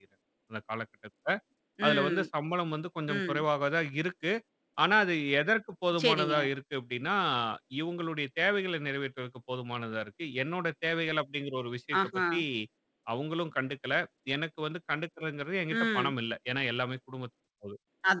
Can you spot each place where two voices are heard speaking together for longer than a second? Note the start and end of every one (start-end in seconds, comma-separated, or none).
none